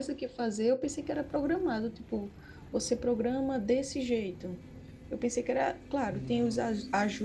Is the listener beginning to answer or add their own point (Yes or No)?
No